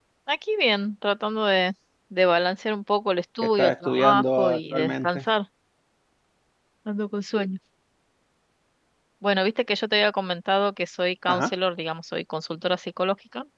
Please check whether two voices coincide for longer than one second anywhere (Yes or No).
Yes